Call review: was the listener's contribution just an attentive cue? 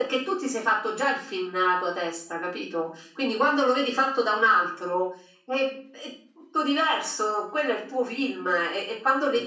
Yes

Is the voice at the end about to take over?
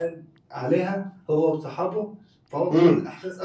No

